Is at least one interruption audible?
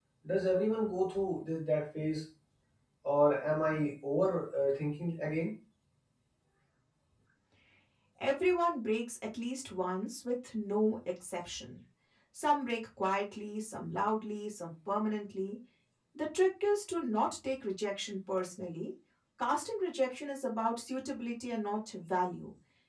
No

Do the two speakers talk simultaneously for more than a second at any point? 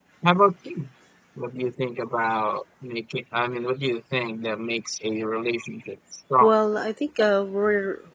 No

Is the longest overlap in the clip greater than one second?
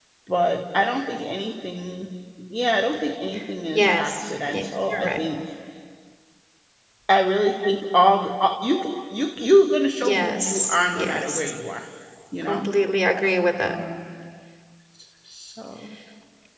Yes, from 3.7 s

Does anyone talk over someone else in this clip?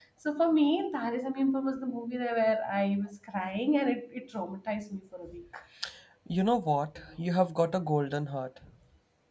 No

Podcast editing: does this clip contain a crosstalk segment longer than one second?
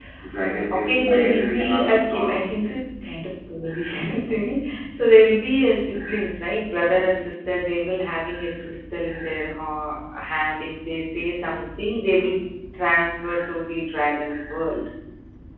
Yes, from 0.7 s

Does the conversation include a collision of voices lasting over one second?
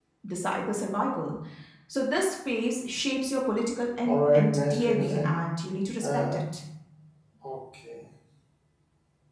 Yes, from 4.0 s

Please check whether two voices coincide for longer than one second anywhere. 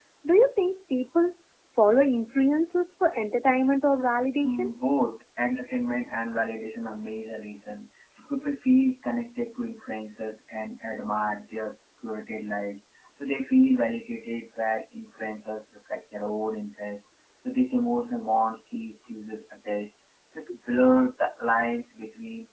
No

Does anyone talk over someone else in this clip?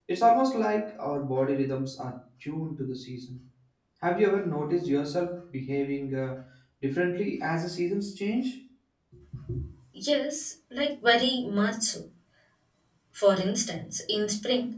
No

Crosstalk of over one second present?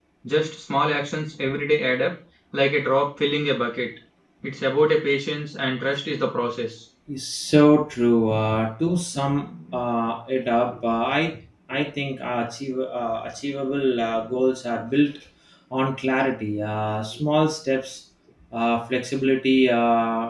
No

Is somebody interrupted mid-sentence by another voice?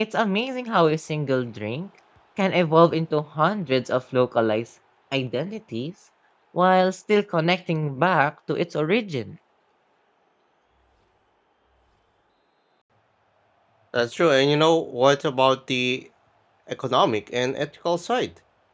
No

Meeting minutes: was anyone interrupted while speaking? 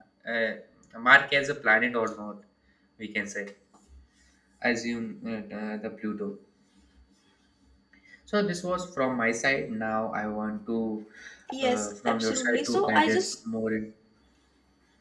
Yes, from 11.6 s

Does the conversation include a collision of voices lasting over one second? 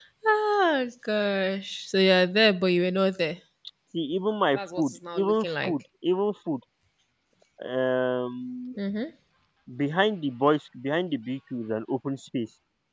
Yes, from 4.5 s

